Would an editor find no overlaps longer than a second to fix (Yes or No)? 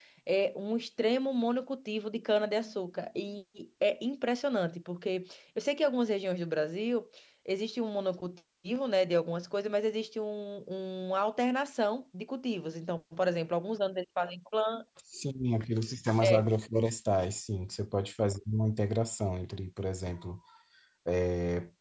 Yes